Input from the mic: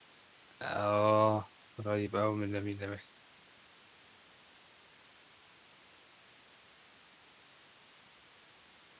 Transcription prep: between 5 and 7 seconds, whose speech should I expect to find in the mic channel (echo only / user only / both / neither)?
neither